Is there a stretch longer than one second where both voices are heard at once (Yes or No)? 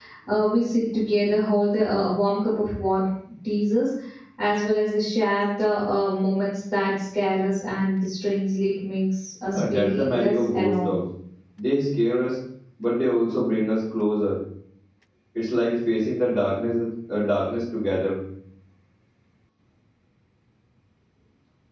Yes